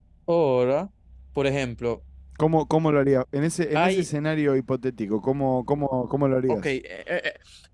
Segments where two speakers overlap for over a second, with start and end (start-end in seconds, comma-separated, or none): none